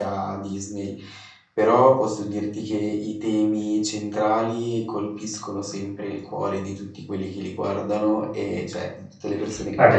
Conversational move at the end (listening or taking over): taking over